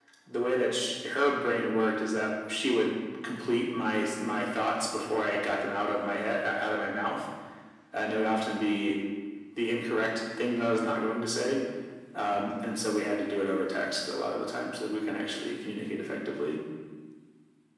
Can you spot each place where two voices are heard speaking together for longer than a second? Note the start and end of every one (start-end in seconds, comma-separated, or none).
none